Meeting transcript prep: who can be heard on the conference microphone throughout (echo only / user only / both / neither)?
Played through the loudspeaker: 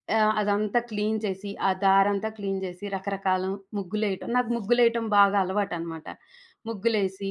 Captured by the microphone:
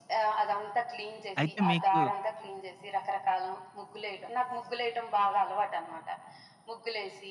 both